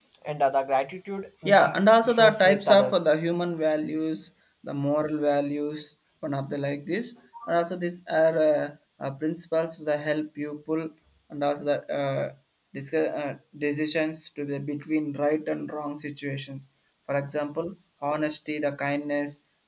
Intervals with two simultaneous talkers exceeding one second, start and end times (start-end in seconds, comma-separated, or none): 1.4-3.0